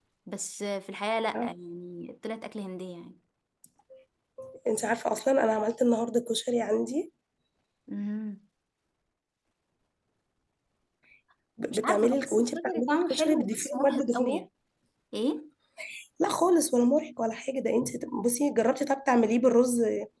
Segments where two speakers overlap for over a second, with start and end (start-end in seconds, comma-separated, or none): 11.7-14.4